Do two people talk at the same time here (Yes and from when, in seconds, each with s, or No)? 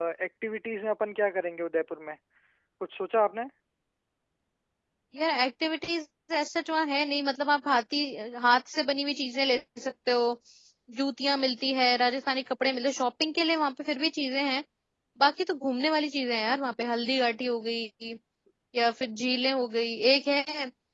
No